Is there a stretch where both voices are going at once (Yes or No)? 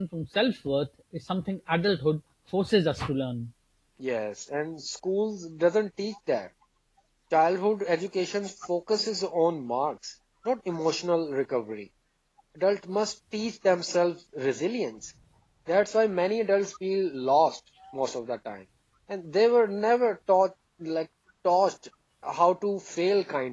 No